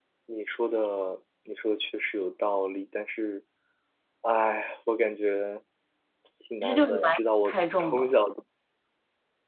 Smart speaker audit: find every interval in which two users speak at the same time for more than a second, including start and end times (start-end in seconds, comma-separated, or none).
6.6-8.1